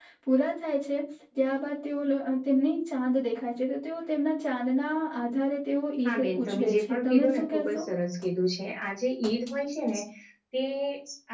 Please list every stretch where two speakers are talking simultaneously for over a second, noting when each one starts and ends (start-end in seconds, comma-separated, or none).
6.0-7.8